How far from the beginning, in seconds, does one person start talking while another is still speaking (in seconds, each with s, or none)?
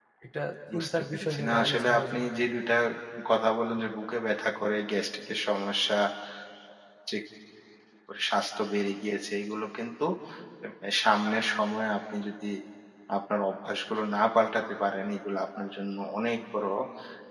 0.7 s